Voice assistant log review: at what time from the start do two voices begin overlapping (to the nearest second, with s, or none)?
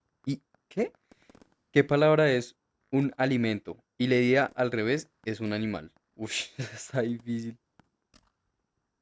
none